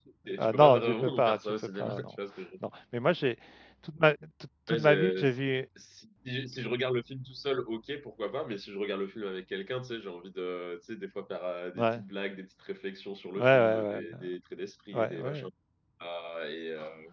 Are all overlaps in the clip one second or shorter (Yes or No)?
No